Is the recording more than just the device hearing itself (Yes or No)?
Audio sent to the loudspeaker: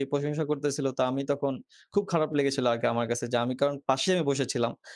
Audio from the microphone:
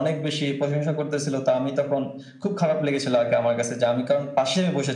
No